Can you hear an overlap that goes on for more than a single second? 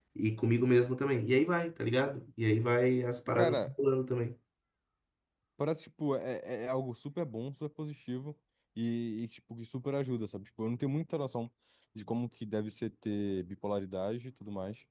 No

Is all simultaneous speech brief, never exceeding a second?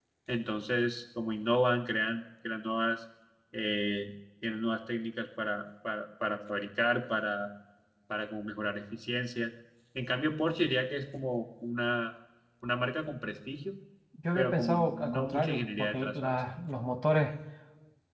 No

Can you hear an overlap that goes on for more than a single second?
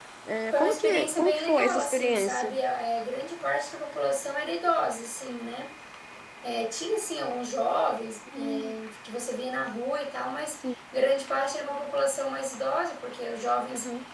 Yes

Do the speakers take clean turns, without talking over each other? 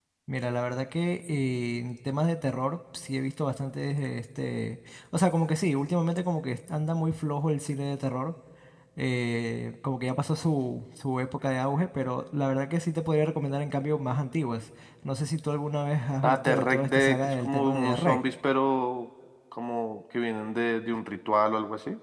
No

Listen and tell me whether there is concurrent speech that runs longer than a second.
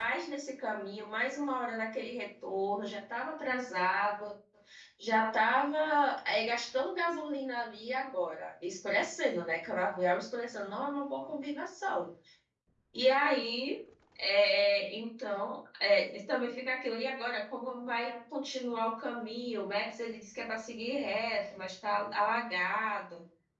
No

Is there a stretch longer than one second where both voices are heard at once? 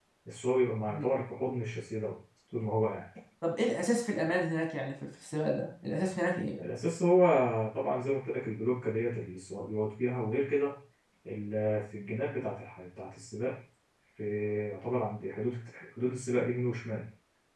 No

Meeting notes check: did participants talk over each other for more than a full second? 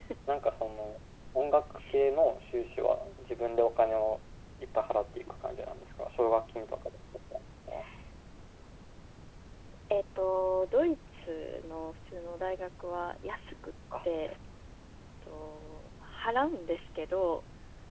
No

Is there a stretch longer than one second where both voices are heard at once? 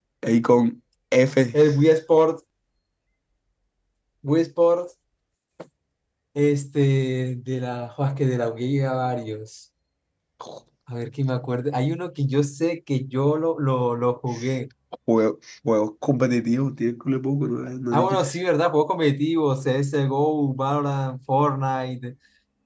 No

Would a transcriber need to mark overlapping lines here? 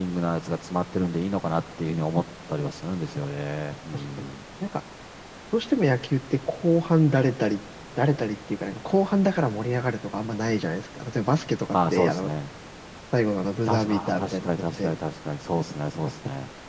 Yes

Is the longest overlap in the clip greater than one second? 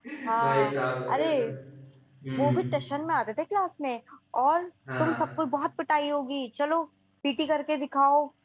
No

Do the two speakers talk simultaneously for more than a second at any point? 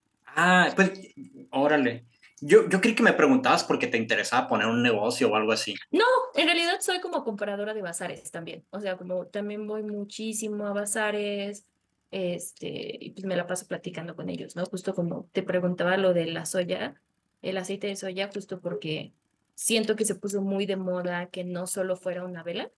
No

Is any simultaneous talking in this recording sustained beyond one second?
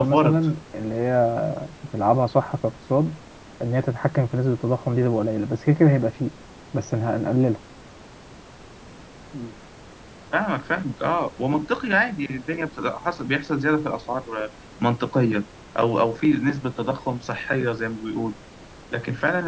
No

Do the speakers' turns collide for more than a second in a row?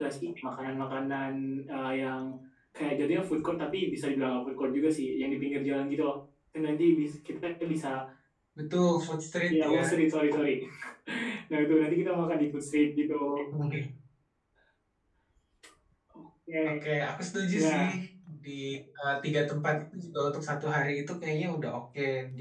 No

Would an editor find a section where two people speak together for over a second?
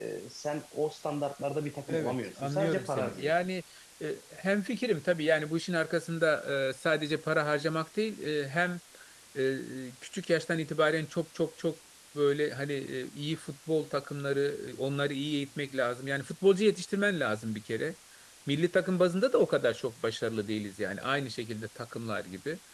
Yes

